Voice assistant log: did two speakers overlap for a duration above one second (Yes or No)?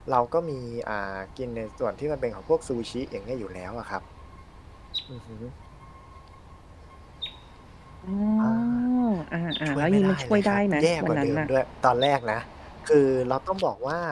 Yes